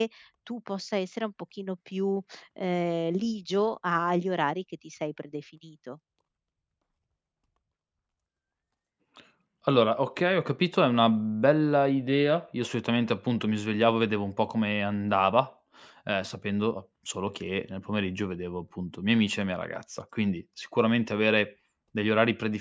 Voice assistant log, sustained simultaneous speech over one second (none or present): none